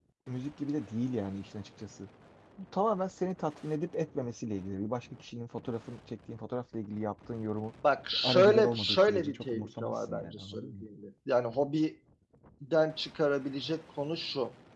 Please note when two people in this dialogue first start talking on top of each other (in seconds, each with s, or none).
8.2 s